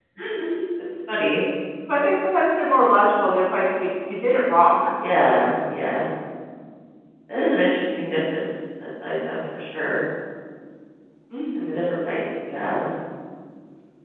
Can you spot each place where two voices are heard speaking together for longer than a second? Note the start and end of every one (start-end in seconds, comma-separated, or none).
none